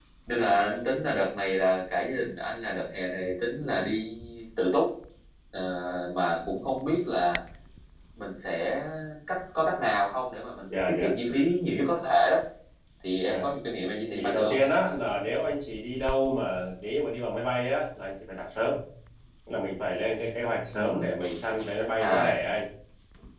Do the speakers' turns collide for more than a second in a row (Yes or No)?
No